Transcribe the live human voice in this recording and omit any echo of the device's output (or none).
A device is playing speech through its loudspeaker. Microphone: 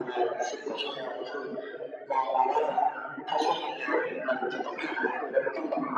none